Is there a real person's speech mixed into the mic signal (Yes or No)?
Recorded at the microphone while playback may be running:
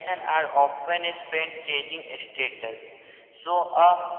No